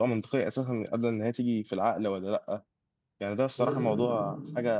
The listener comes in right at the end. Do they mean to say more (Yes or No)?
No